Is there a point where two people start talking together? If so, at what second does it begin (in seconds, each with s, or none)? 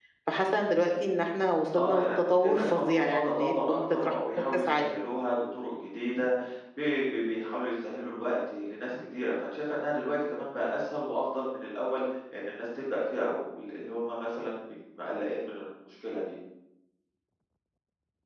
1.7 s